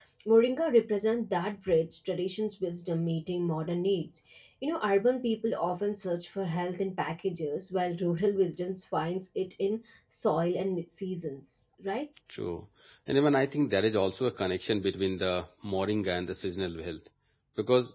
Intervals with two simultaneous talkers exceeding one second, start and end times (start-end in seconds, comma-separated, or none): none